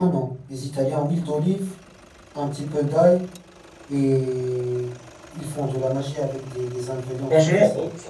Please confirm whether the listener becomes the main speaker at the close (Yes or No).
Yes